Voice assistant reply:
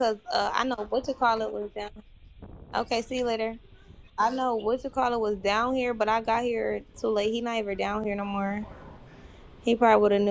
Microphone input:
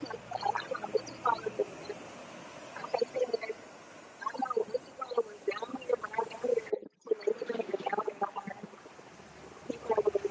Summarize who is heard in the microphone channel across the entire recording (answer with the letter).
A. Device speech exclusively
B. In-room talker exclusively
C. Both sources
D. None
A